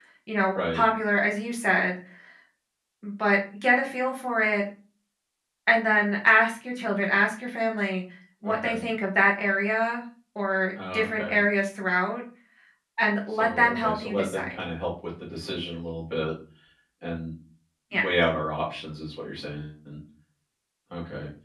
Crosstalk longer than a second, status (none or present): present